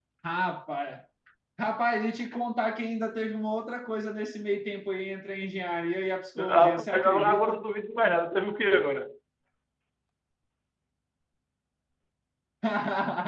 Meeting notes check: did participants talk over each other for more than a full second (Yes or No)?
Yes